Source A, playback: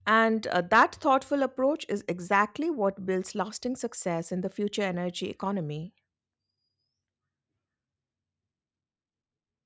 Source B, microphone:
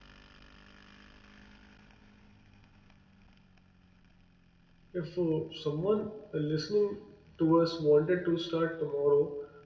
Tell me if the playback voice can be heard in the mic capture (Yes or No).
No